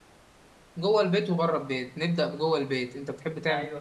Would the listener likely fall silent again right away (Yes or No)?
No